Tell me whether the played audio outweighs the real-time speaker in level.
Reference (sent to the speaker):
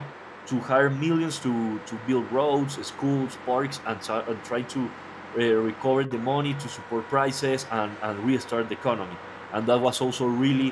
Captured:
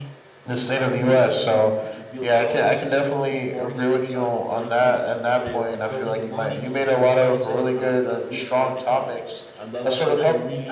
No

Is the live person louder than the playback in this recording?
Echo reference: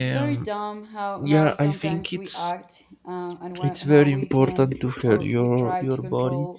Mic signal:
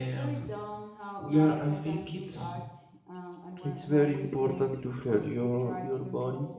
No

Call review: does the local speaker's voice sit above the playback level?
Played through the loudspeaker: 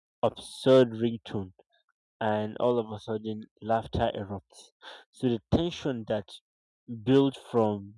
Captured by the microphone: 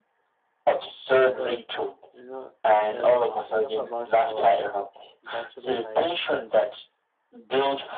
No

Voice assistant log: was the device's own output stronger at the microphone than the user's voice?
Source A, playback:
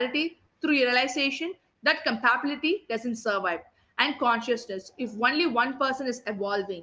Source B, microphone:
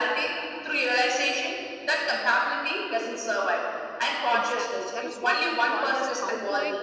Yes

